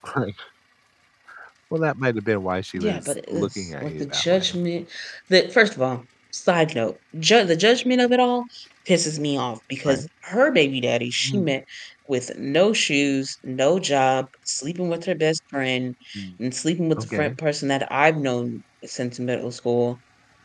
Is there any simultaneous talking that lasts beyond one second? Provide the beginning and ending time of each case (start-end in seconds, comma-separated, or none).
2.8-4.5